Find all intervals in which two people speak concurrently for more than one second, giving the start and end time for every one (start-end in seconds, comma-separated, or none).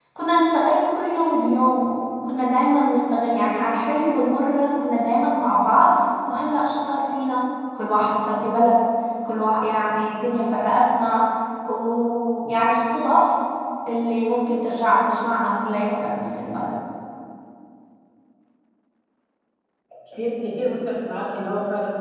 none